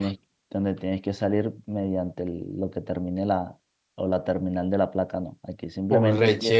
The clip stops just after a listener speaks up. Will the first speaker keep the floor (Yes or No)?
No